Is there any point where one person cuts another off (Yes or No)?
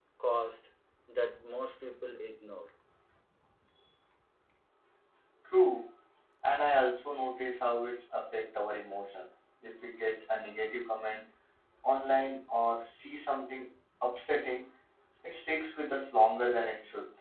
No